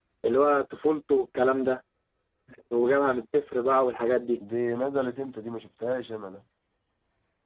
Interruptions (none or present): none